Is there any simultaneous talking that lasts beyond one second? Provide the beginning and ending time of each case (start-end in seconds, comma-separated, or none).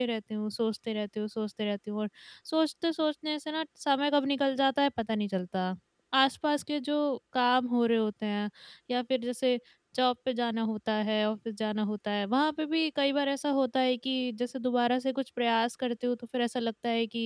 none